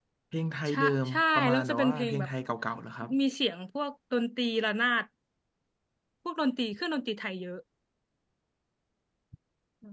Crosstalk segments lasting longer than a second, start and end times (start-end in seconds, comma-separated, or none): 0.7-2.3